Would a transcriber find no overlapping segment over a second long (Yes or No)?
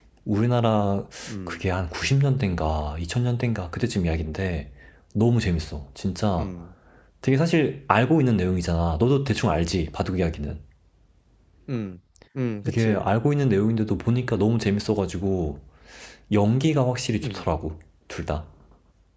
Yes